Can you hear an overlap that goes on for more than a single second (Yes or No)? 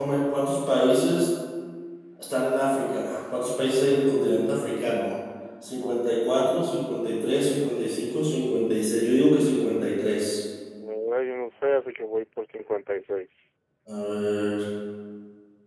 No